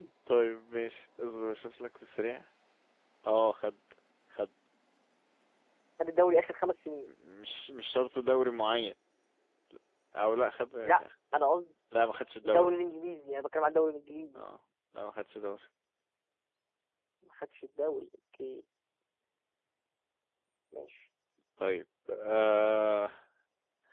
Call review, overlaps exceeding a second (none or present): none